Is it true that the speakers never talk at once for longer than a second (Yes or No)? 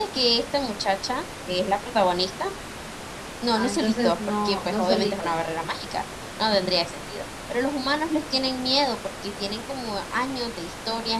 No